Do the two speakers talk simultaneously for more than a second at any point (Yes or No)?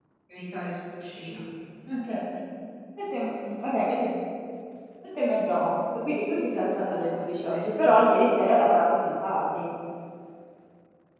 No